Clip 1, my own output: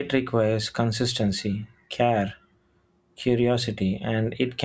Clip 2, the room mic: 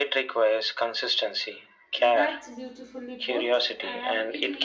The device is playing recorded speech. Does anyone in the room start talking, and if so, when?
2.0 s

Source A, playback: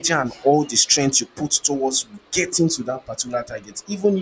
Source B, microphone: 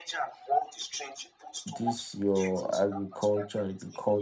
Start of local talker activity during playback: 1.6 s

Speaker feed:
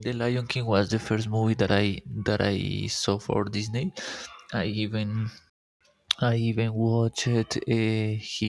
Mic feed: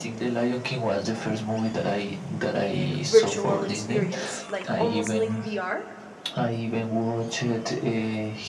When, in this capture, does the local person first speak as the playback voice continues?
2.6 s

